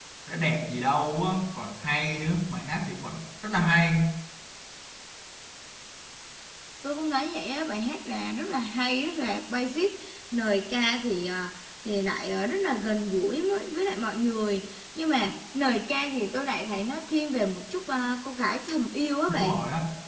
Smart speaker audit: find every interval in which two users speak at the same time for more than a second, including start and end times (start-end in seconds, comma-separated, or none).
none